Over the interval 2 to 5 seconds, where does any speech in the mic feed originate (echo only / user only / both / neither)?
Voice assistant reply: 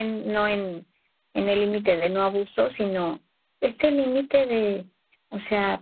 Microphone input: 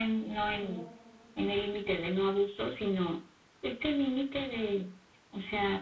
echo only